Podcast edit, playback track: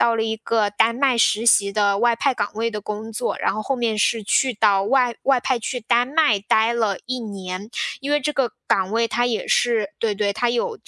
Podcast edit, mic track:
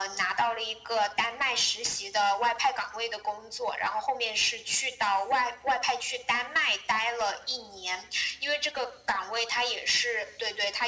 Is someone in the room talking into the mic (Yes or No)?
No